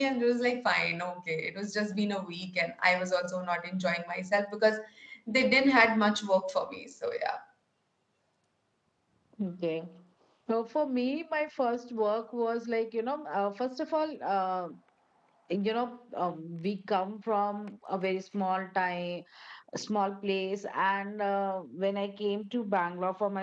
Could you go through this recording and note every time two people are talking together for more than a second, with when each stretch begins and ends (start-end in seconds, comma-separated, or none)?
none